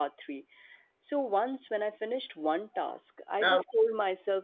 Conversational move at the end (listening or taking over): listening